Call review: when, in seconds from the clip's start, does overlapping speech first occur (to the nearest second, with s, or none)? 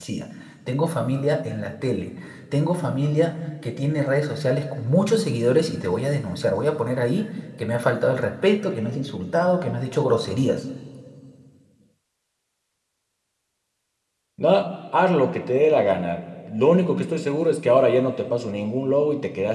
none